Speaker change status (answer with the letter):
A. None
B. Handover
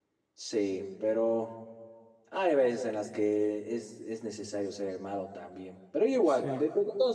A